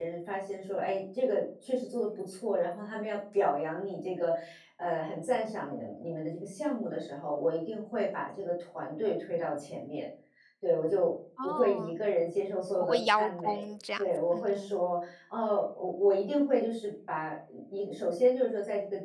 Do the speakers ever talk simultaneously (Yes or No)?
Yes